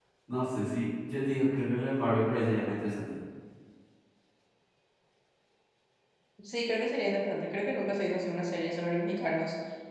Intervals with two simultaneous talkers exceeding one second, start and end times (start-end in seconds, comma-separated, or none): none